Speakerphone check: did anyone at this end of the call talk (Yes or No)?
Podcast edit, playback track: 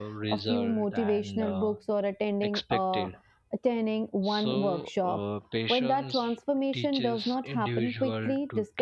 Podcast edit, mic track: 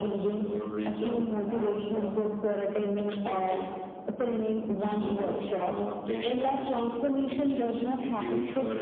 No